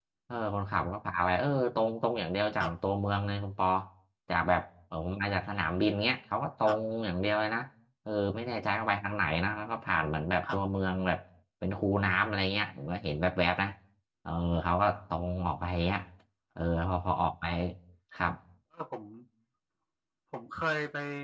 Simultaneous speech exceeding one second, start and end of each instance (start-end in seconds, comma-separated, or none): none